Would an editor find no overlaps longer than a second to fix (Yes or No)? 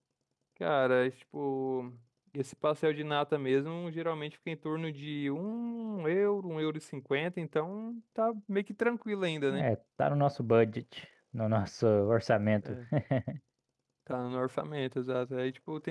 Yes